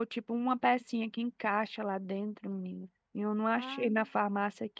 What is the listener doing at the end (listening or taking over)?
listening